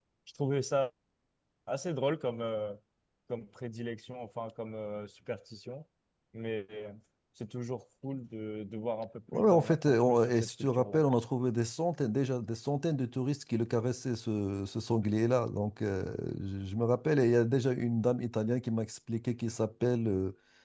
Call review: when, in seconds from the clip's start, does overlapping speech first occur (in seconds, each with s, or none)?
9.3 s